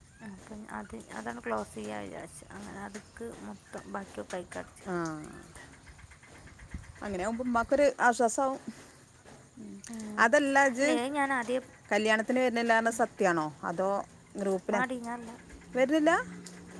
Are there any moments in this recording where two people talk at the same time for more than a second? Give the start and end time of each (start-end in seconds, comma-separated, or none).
none